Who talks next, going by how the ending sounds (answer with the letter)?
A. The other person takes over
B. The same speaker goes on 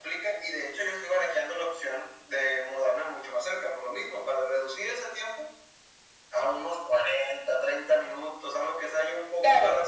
A